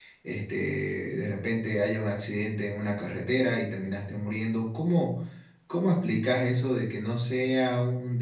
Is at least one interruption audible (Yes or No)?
No